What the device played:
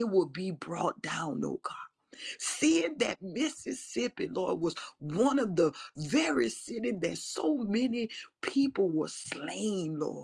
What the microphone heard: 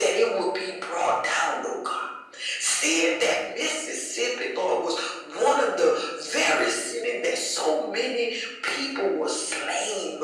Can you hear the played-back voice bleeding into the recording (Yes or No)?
Yes